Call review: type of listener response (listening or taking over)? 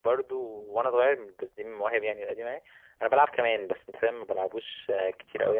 taking over